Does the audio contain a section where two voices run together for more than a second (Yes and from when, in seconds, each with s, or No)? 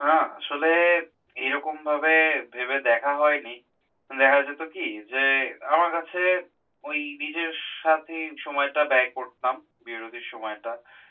No